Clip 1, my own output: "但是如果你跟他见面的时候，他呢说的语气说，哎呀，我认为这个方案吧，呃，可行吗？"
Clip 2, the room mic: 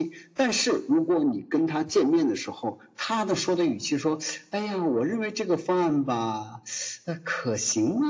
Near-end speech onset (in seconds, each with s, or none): none